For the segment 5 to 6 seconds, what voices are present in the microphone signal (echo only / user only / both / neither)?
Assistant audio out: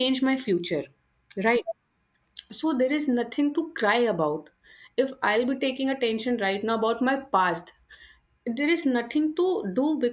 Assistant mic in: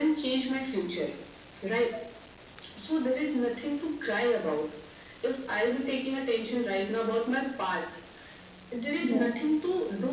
echo only